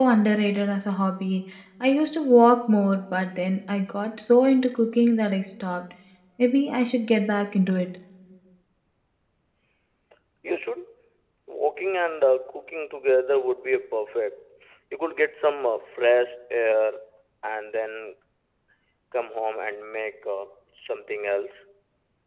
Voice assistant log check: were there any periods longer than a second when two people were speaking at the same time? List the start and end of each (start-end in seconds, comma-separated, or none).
none